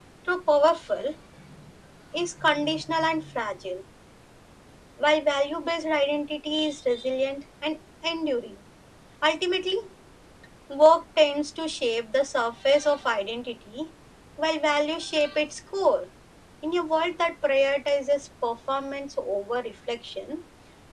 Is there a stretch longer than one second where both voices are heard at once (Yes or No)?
No